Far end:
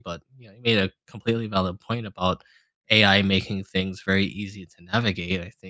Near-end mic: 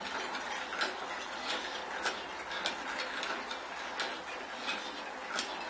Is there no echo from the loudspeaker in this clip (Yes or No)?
Yes